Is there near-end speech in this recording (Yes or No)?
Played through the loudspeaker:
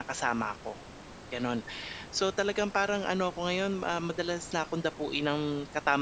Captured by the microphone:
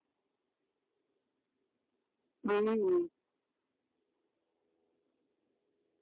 Yes